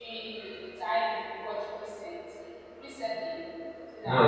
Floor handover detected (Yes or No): Yes